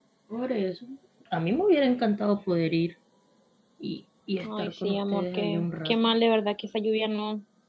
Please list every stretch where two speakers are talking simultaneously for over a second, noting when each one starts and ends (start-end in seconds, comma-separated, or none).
4.4-6.1